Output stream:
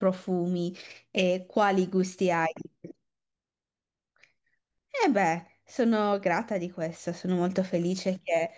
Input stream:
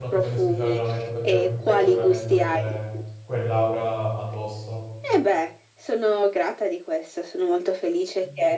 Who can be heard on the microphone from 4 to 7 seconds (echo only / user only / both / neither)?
both